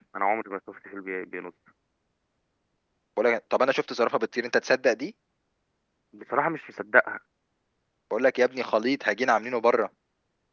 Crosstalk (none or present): none